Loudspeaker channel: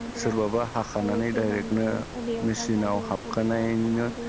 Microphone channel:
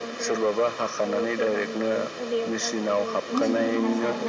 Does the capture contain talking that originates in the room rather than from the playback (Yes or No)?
Yes